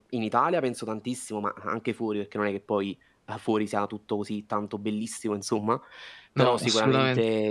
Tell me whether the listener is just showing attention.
Yes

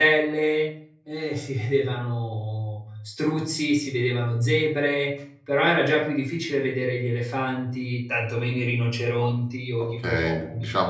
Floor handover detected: Yes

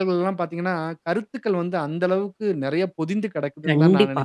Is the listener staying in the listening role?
No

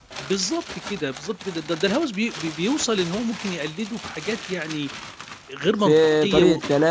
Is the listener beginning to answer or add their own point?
Yes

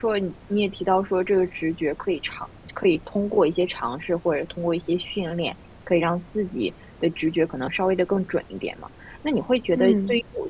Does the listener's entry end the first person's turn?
No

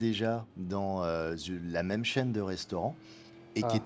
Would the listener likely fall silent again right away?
Yes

